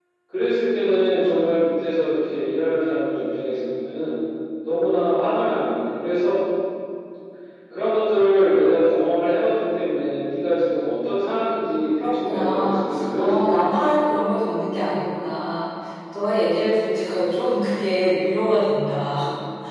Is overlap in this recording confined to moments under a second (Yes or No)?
No